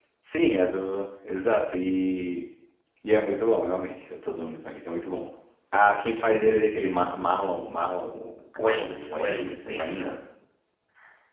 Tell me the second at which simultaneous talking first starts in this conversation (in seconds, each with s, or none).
8.5 s